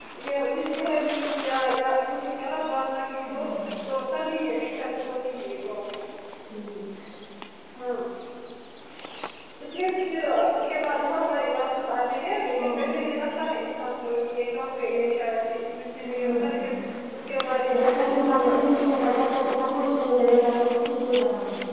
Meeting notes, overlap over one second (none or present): present